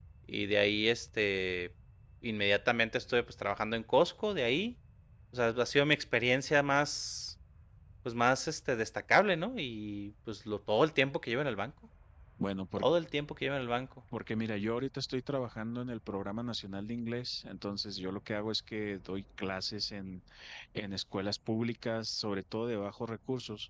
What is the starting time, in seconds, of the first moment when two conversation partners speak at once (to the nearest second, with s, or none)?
none